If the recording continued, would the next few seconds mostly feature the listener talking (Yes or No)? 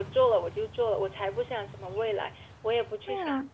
No